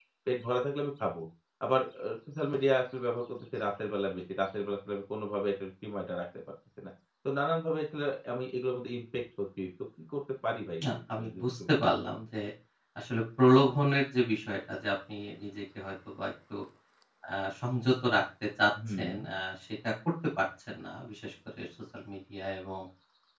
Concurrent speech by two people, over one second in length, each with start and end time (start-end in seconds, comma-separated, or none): 10.8-12.1